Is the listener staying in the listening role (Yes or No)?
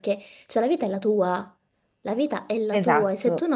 Yes